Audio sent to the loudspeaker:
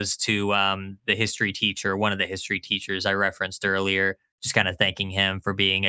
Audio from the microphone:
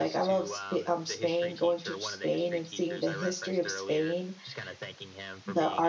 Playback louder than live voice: No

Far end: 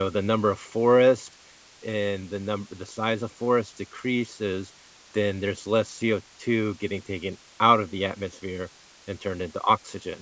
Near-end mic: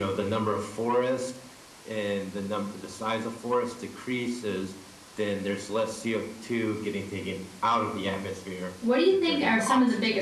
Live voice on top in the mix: Yes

